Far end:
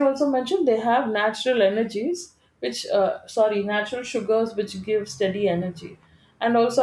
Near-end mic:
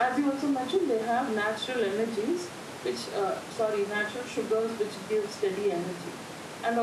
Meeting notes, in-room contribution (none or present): none